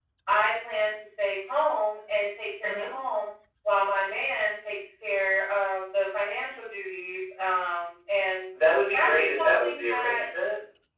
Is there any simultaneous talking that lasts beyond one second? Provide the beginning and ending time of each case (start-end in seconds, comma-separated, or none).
8.9-10.2